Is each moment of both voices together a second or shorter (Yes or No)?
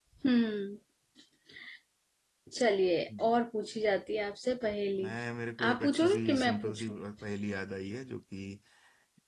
No